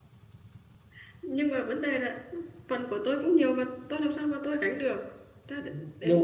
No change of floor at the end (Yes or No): No